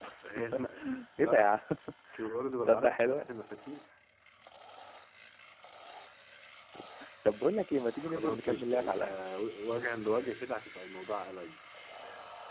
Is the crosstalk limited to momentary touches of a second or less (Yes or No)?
No